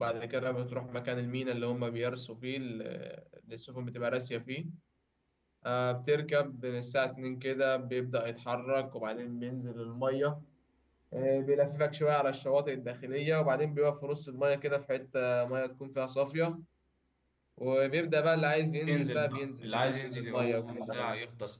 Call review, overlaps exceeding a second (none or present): present